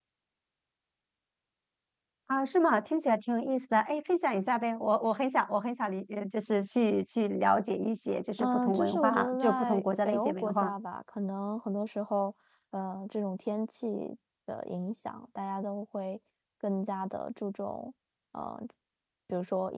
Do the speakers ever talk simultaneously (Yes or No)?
Yes